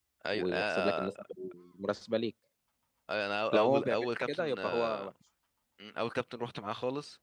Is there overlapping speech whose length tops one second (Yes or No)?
Yes